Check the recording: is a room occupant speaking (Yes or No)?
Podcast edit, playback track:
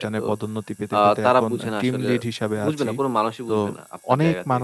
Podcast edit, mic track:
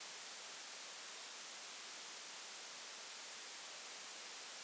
No